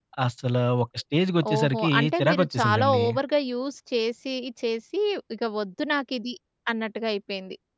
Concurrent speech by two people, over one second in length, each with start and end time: 1.5-3.0

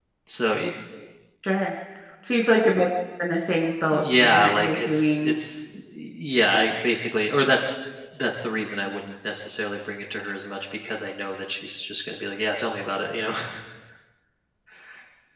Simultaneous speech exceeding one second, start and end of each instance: 3.9-5.4

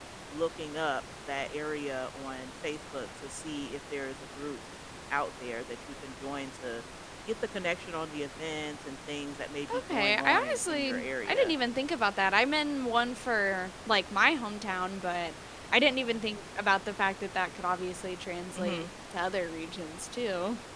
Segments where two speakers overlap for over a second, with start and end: 9.9-11.5

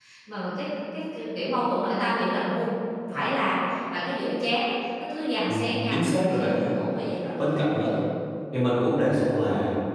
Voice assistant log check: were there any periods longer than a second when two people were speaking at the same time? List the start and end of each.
5.5-6.7

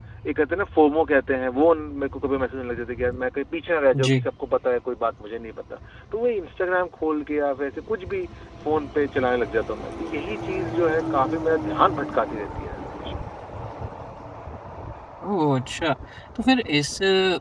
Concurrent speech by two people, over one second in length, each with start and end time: none

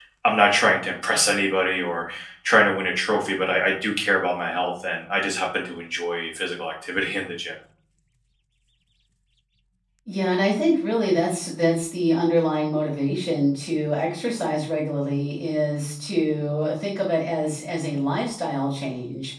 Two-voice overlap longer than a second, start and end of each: none

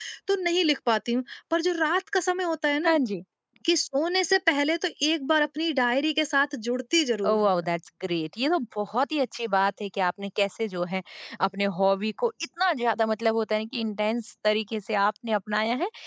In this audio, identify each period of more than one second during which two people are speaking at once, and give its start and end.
none

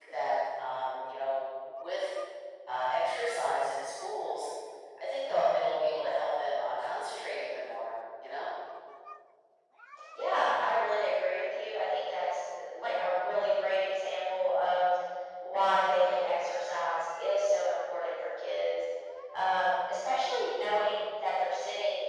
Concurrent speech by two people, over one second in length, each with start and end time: none

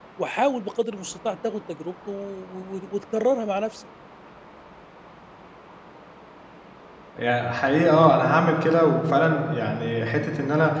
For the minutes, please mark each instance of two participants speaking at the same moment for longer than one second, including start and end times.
none

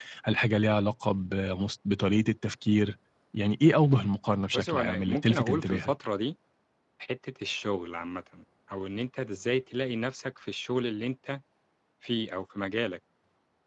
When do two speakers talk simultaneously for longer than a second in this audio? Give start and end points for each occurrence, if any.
4.5-5.9

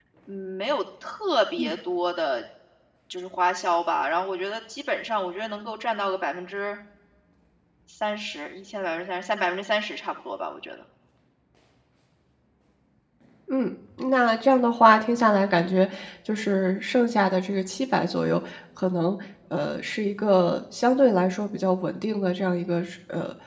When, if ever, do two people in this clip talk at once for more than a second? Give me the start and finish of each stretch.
none

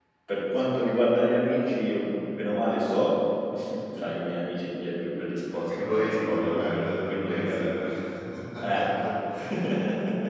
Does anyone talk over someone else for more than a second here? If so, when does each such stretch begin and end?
5.5-7.7

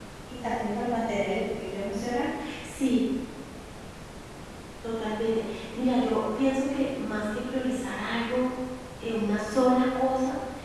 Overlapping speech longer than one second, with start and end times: none

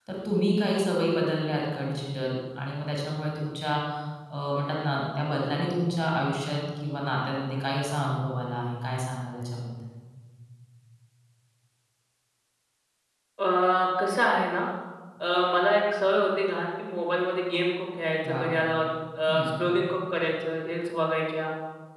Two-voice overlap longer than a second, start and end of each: none

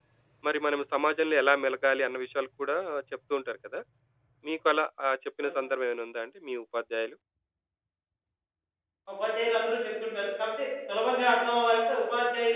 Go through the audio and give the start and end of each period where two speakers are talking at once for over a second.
none

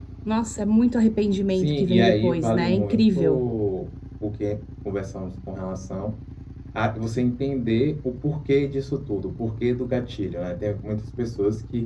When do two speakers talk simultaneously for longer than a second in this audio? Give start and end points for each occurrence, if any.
1.5-3.4

